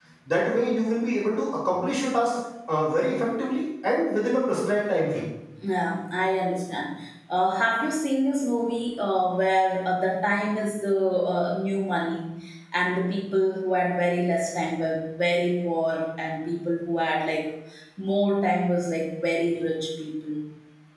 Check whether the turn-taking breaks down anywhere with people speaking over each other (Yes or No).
No